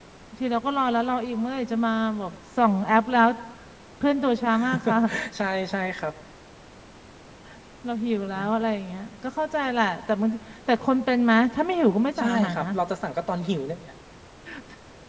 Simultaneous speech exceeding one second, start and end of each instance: none

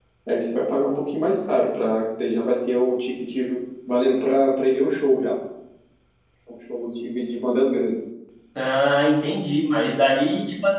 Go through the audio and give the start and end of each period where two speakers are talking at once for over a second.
none

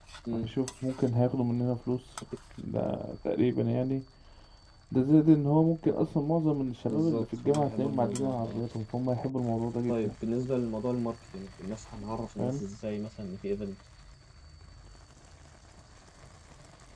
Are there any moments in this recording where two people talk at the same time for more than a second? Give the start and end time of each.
6.9-8.6

